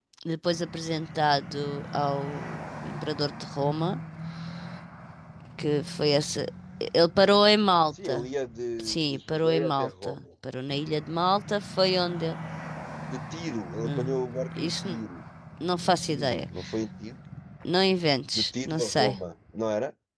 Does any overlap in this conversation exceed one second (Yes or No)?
Yes